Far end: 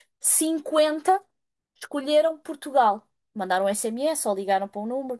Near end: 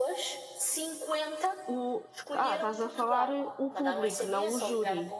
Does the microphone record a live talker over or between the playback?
Yes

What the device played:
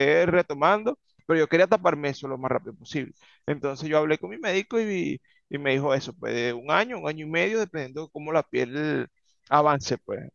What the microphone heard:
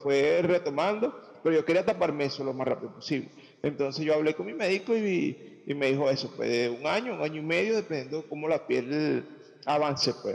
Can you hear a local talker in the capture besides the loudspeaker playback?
No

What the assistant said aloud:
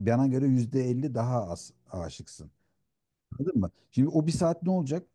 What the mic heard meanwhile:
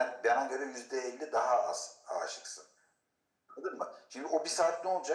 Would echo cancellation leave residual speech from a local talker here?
No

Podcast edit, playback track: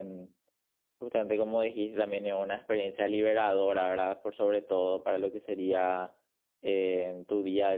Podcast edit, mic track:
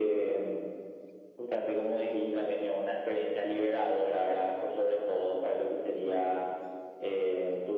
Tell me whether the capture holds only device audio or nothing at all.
Yes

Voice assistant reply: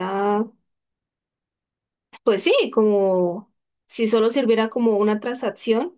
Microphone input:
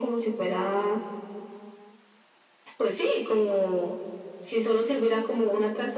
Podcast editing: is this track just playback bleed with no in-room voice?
Yes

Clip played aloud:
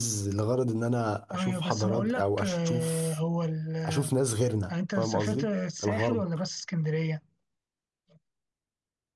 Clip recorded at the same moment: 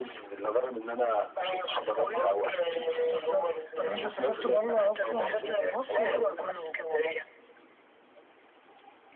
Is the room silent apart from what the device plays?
No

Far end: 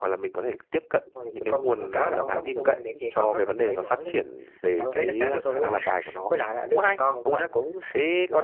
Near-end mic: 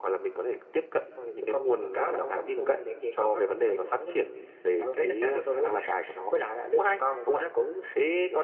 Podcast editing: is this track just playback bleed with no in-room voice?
Yes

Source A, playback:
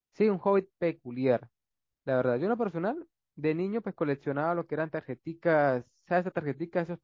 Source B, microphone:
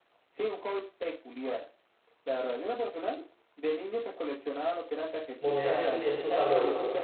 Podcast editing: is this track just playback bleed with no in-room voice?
No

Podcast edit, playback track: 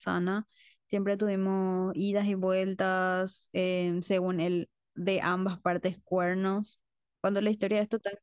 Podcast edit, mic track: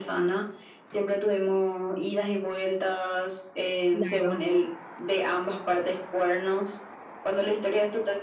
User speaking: Yes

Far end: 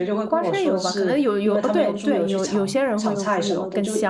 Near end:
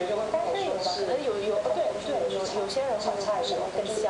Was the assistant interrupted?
No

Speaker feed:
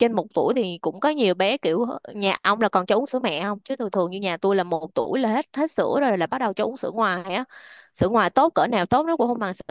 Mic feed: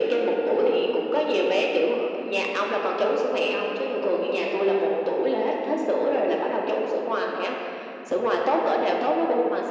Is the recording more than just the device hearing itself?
No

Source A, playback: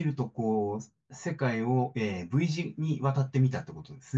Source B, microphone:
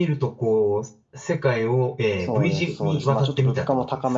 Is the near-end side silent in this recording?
No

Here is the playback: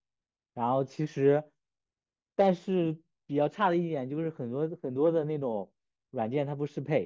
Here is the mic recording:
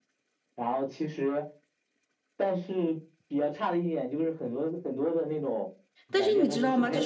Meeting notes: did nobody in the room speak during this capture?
No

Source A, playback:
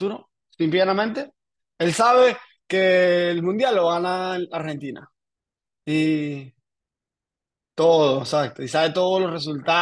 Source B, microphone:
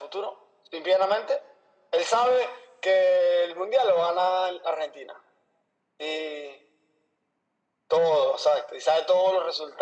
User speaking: No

